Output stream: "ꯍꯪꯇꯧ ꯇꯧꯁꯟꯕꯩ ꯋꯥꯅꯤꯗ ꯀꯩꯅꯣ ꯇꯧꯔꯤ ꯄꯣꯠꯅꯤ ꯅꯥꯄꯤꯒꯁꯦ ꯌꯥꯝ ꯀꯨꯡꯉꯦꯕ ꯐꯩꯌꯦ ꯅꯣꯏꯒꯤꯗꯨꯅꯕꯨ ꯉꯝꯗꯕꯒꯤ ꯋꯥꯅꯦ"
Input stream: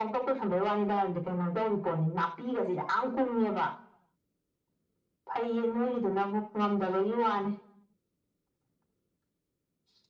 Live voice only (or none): none